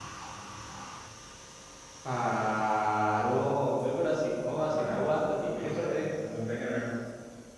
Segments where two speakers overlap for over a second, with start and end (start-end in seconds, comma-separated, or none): 4.5-6.0